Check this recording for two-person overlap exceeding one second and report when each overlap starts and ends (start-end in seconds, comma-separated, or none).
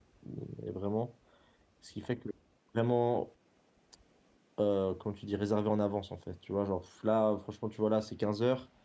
none